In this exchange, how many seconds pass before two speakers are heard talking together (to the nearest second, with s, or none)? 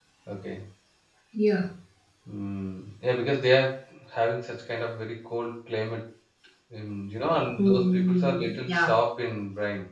8 s